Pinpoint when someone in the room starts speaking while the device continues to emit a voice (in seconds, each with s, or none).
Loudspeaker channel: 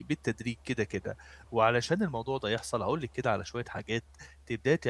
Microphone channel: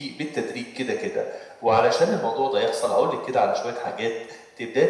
none